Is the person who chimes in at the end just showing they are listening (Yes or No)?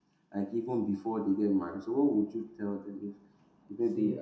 Yes